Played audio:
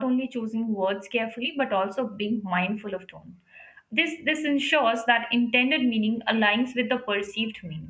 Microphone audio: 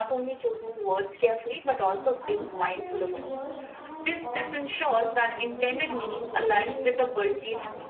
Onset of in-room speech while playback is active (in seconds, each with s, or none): 1.9 s